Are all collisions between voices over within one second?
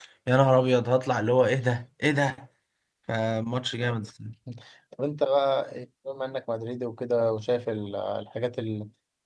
Yes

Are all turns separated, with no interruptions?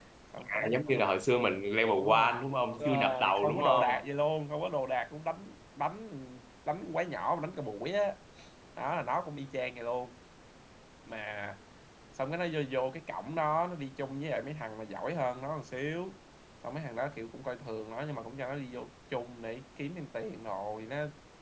No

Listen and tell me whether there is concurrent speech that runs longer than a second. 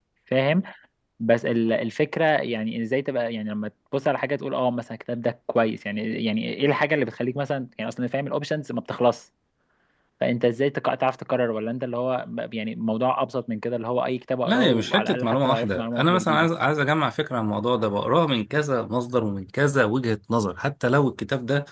Yes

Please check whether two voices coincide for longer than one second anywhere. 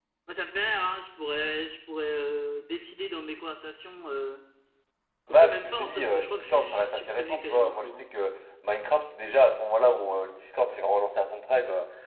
Yes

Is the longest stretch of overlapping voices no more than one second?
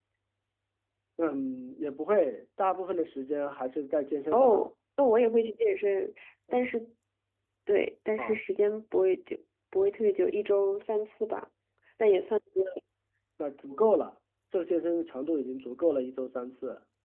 Yes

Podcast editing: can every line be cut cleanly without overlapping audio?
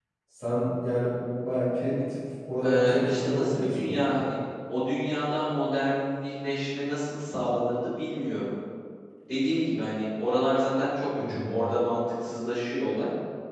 No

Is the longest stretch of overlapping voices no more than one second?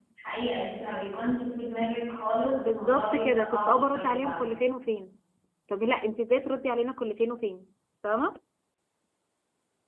No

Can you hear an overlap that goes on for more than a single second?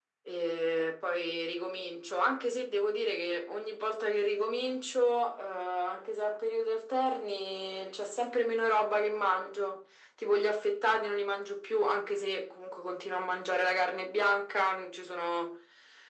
No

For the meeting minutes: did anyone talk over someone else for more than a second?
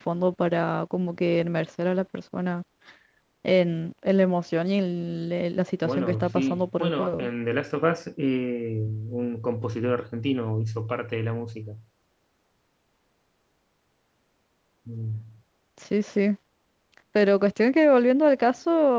Yes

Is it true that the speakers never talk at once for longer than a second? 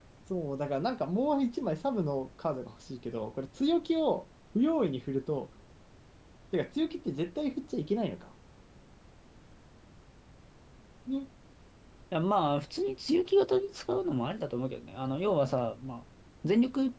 Yes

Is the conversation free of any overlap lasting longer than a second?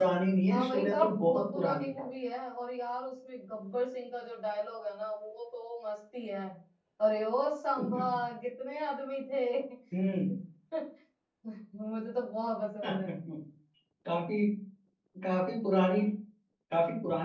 No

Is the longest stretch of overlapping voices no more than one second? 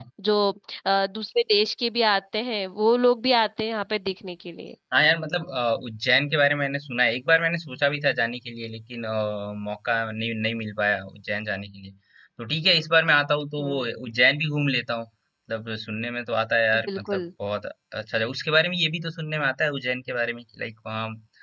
Yes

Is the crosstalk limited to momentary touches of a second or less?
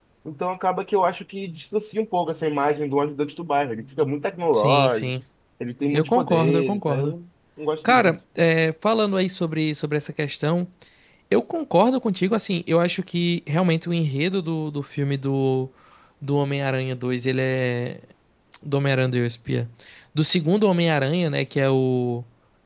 No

